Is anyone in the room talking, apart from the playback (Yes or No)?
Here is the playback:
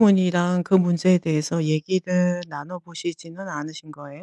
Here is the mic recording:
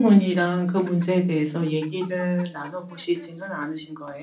No